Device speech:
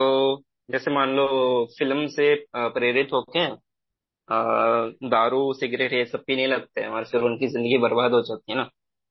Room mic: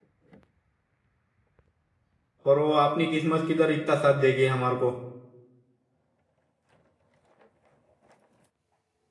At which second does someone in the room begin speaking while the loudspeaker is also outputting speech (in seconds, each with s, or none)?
2.5 s